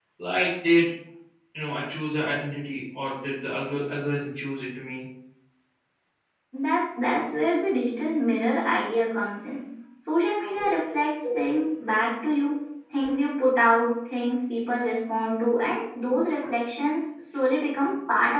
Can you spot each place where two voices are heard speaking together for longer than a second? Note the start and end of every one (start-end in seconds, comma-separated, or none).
none